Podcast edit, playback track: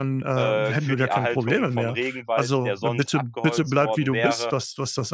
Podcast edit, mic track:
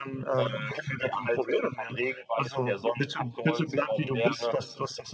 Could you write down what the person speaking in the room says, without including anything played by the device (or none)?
none